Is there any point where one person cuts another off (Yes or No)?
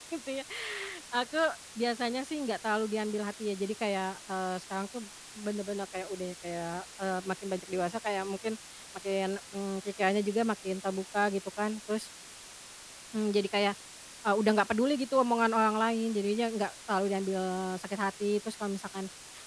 No